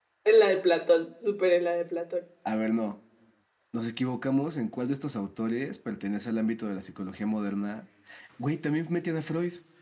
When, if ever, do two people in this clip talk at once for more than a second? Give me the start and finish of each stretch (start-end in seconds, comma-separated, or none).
none